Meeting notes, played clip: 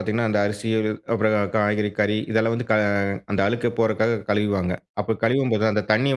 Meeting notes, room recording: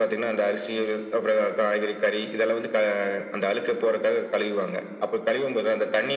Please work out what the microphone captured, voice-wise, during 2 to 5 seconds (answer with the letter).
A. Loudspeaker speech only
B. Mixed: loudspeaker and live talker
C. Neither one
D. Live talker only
A